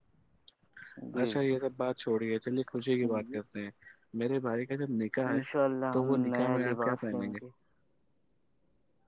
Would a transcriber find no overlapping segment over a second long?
No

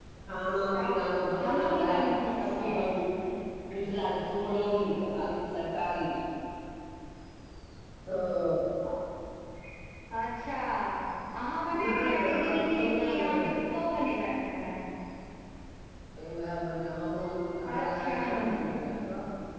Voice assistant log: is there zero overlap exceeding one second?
No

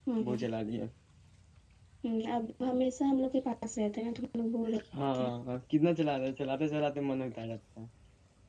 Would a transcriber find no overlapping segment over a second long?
Yes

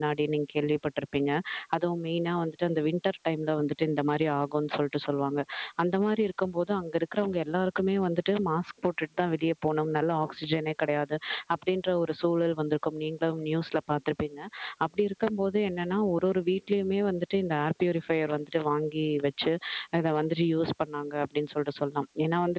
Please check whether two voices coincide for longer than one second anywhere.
No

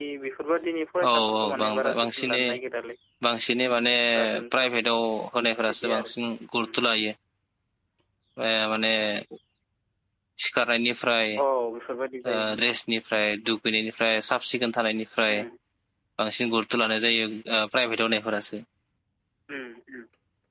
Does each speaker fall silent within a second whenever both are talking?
No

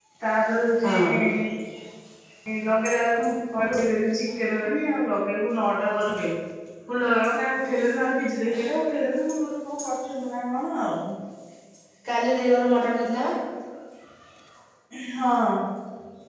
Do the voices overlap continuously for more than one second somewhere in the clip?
No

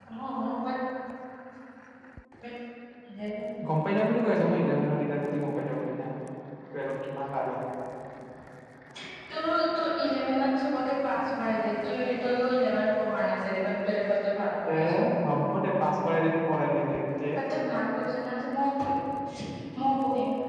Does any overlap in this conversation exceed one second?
No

